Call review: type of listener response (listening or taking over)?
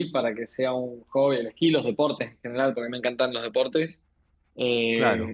listening